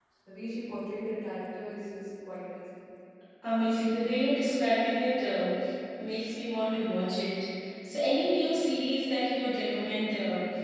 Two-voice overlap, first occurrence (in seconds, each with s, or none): none